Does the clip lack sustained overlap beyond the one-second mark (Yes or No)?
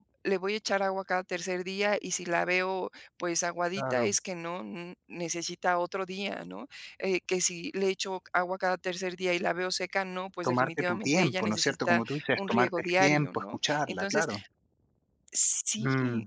No